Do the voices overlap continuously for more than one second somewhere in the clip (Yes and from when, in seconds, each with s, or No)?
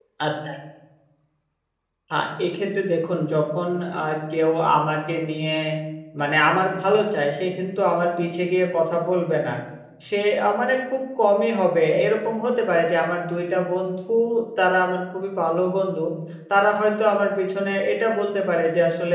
No